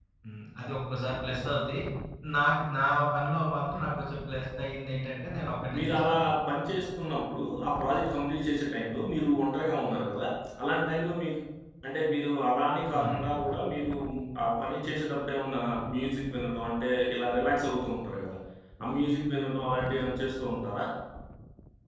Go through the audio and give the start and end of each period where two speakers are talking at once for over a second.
none

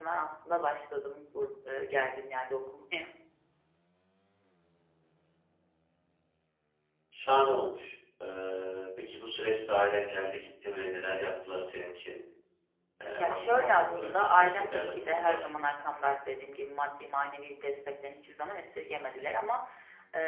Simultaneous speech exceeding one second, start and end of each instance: 13.2-15.4

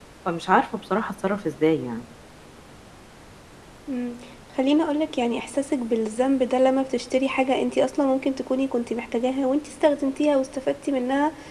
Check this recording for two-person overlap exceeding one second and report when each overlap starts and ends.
none

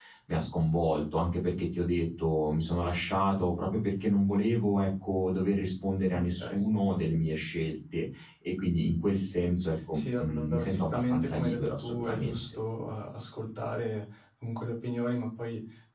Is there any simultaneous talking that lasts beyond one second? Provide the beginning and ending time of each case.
9.9-12.4

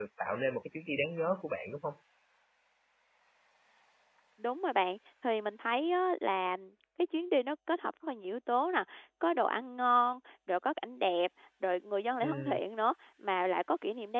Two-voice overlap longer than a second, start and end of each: none

